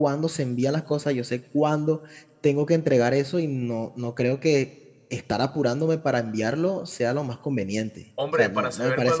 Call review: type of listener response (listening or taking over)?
taking over